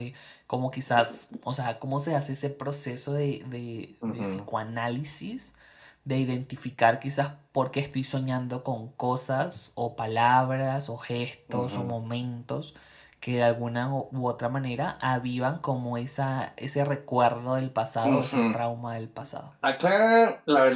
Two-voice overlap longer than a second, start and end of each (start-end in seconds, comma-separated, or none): none